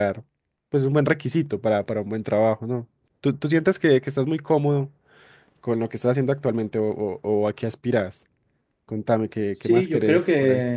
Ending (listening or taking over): taking over